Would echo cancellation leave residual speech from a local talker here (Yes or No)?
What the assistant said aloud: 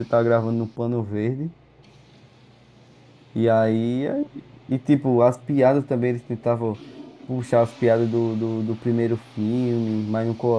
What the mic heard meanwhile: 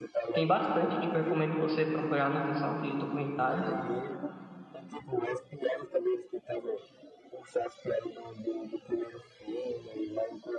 Yes